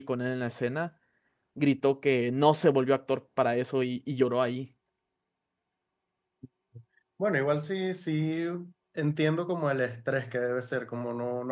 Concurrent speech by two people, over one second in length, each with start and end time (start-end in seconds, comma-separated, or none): none